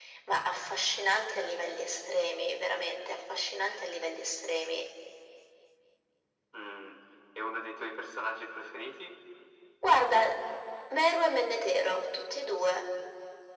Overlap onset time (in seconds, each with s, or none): none